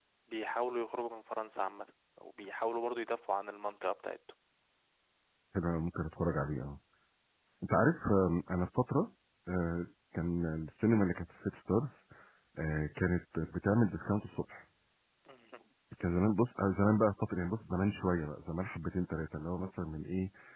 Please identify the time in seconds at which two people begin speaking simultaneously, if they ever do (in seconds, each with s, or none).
none